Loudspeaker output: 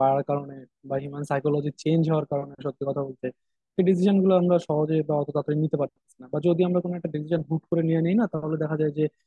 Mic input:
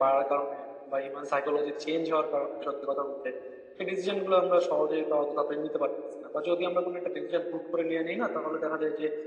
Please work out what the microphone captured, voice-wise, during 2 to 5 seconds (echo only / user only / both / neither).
echo only